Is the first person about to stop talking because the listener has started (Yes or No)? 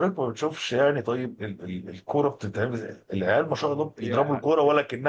No